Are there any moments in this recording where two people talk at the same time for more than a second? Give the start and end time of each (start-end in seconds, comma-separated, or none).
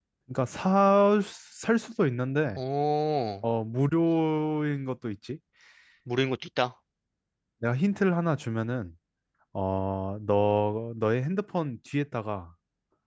none